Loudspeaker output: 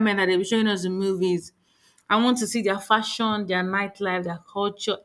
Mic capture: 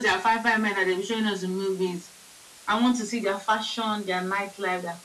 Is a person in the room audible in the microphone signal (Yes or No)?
No